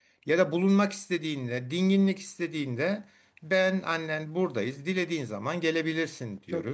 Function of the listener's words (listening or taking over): listening